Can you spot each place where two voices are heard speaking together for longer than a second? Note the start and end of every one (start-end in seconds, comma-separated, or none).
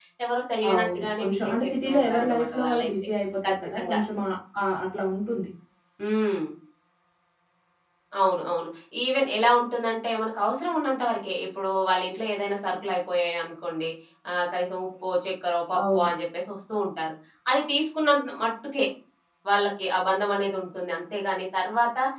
0.7-2.9